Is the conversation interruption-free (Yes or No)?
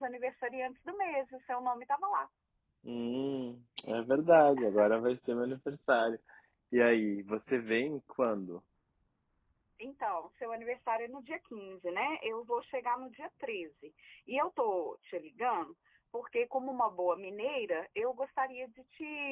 Yes